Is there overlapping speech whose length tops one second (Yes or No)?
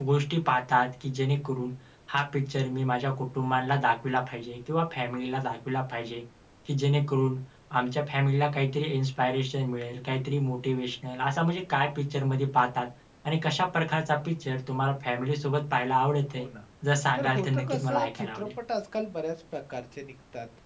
Yes